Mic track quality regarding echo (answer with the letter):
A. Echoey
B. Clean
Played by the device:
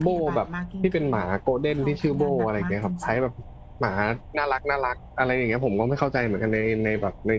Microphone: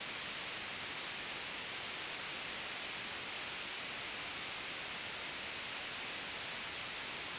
B